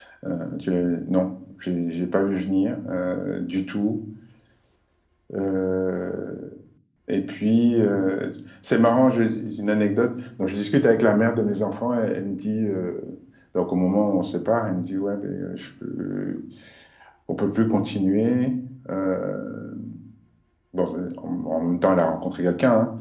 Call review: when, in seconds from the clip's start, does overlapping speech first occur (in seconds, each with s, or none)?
none